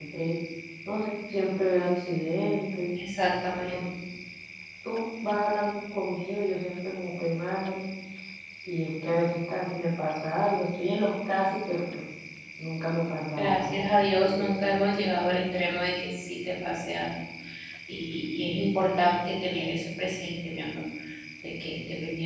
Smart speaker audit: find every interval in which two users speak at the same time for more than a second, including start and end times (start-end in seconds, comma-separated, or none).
13.4-14.6